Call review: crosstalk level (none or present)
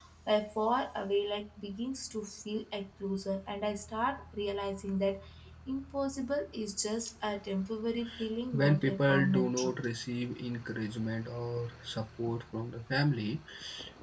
present